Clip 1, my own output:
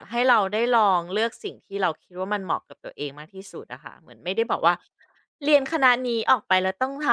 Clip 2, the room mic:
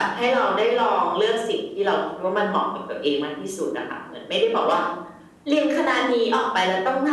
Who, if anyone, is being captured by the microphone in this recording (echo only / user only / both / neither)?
echo only